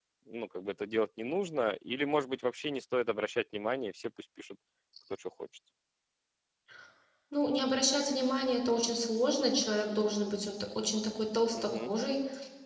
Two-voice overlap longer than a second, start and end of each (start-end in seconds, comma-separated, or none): none